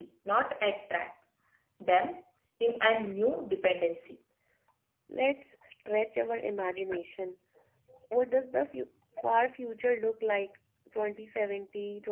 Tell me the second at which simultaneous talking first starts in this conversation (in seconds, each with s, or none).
none